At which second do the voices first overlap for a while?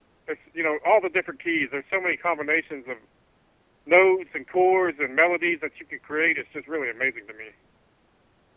none

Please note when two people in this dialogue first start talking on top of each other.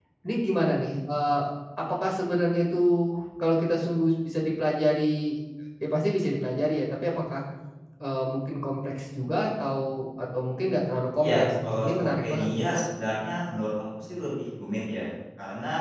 11 s

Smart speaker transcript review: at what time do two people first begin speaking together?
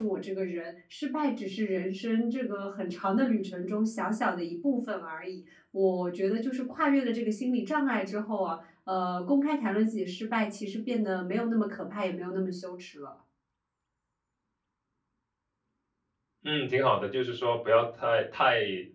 none

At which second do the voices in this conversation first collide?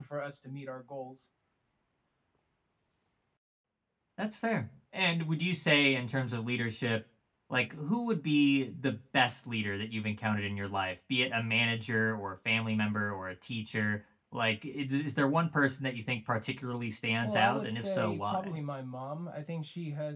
17 s

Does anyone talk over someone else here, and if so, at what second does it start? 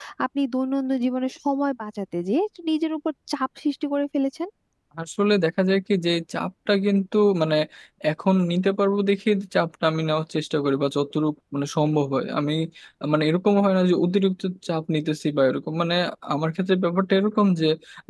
none

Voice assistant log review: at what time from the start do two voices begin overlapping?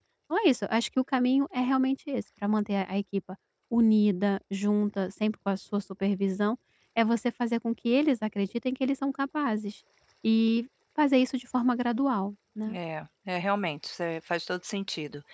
none

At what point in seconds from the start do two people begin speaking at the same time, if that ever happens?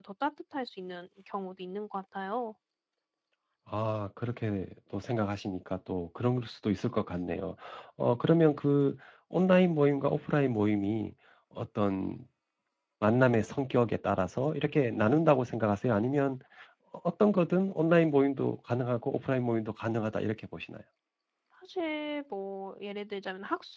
none

